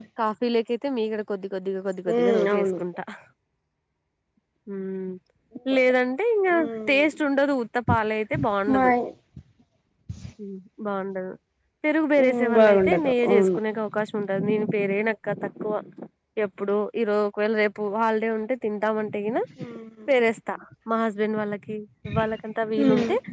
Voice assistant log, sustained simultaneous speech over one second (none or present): present